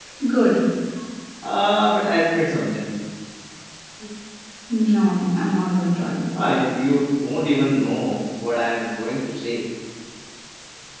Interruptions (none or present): none